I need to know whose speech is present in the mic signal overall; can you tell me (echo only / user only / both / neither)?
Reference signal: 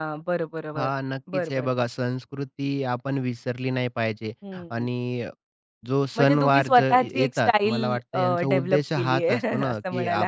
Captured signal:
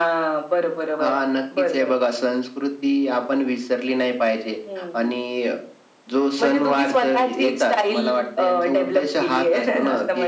echo only